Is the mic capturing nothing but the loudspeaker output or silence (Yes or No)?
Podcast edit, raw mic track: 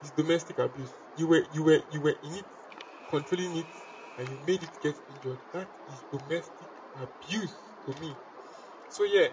No